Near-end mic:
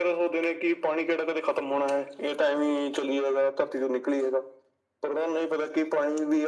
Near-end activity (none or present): none